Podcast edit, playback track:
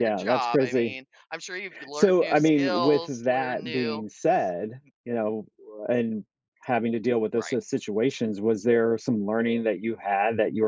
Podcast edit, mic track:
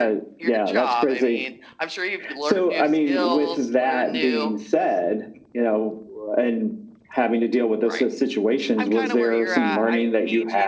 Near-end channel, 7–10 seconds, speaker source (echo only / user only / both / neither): both